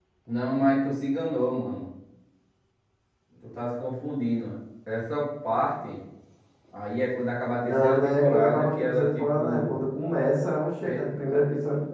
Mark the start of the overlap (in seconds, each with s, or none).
7.6 s